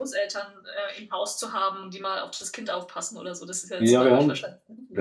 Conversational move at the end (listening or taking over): taking over